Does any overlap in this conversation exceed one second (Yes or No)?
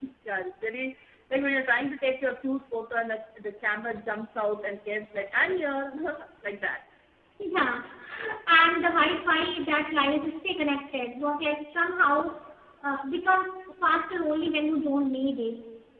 No